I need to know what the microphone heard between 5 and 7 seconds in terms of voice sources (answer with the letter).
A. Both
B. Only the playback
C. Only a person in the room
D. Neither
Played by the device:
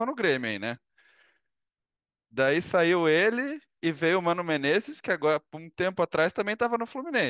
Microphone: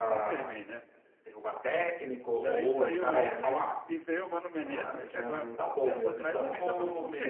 A